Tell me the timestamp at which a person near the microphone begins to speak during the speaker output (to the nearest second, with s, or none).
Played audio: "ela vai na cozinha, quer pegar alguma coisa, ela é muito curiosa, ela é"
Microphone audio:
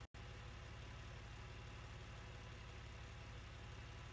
none